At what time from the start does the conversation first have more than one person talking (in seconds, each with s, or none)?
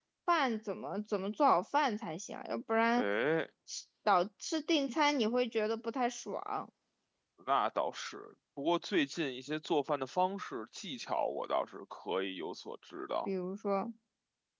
none